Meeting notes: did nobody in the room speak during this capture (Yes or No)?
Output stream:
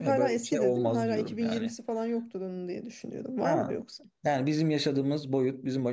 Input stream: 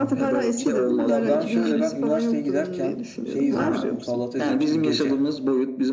No